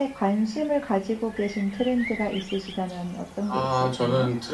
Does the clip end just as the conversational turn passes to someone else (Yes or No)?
Yes